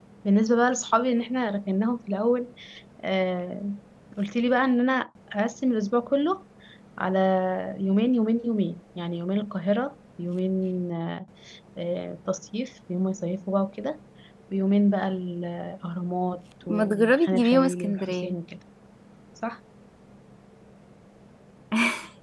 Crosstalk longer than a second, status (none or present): present